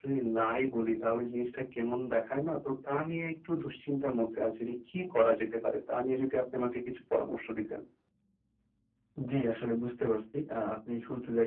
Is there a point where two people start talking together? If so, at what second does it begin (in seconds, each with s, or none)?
none